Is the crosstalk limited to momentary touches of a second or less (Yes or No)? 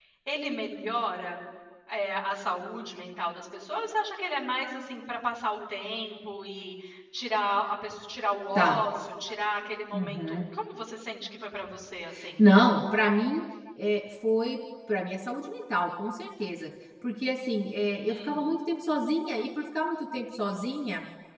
Yes